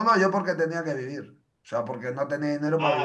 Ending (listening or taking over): taking over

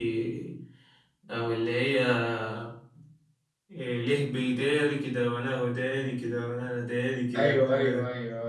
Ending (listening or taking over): taking over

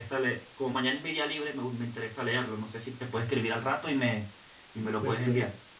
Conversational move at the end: taking over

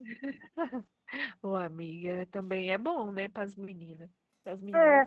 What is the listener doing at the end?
taking over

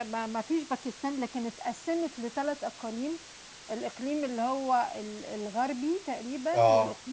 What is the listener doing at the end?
listening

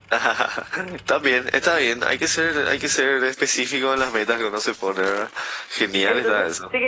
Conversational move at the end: taking over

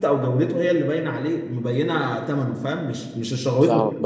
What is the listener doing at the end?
taking over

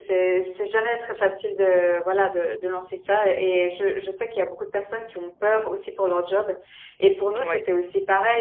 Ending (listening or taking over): listening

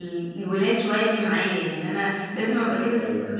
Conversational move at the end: listening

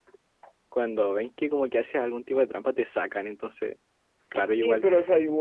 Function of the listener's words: taking over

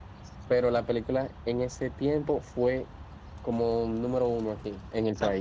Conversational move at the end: taking over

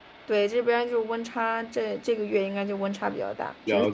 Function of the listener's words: taking over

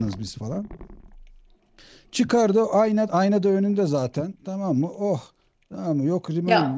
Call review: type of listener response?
taking over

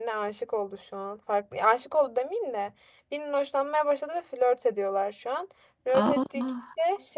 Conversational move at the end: listening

